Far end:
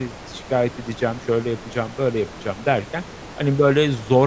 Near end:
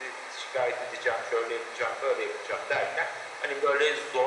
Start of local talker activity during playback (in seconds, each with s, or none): none